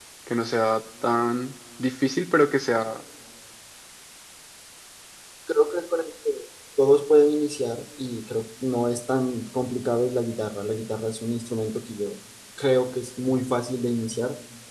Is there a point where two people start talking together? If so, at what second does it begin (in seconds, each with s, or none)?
none